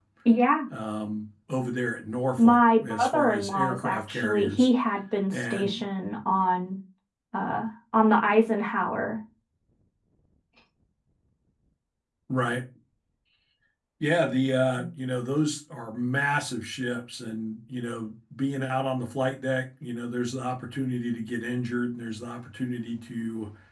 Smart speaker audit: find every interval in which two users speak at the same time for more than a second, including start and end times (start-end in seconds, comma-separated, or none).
2.4-4.7